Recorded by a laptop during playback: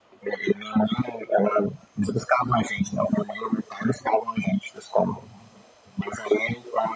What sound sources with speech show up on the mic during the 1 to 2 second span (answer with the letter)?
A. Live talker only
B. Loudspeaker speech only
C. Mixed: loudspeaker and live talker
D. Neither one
B